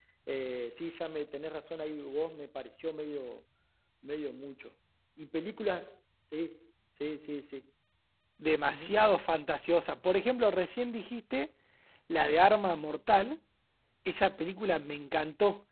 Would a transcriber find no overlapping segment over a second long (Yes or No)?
Yes